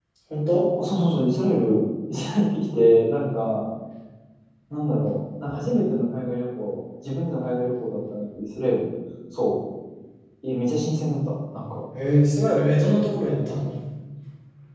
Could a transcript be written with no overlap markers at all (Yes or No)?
Yes